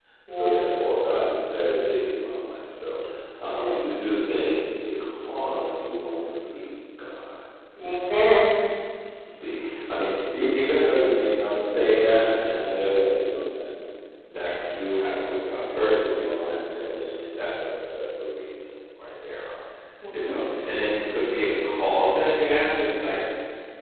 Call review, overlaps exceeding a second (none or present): none